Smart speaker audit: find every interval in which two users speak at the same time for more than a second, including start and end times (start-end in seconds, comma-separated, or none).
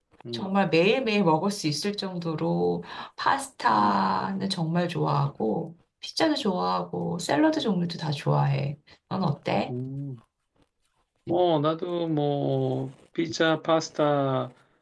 none